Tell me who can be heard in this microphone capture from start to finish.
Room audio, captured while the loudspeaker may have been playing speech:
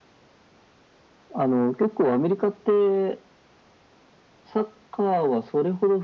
echo only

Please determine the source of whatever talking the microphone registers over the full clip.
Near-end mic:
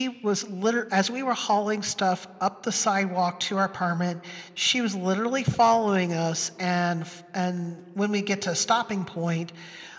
echo only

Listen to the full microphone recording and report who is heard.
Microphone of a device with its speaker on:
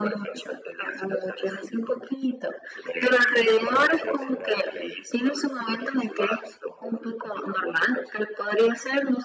both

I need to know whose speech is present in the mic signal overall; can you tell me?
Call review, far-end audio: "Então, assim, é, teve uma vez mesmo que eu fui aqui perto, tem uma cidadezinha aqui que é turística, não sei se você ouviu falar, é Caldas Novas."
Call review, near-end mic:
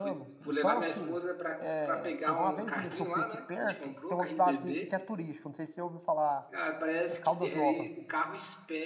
both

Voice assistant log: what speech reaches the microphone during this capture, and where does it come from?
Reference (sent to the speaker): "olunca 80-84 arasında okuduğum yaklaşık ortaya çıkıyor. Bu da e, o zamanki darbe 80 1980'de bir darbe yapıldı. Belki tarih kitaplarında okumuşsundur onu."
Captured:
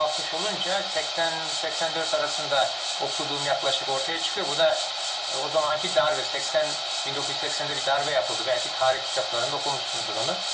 echo only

